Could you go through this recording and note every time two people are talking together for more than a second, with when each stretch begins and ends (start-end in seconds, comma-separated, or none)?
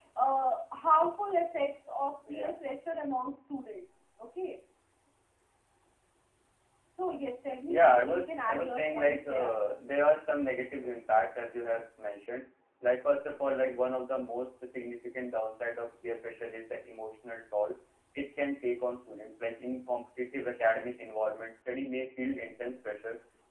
7.7-9.5